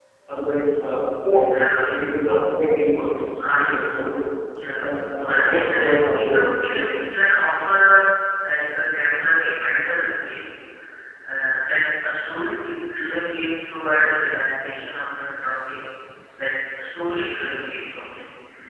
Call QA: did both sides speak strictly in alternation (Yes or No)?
No